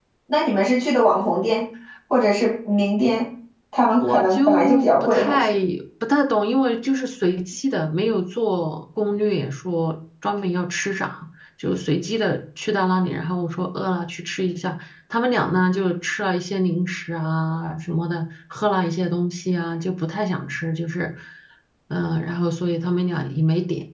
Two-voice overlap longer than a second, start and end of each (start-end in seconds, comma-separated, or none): 4.0-5.5